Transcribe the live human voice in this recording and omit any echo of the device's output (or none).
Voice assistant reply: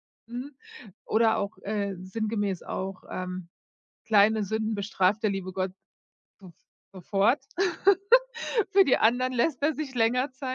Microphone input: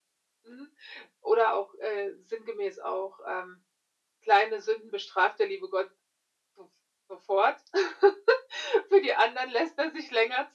none